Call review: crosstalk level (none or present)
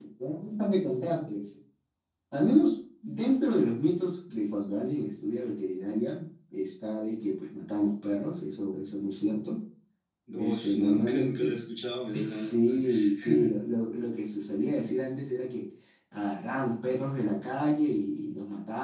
present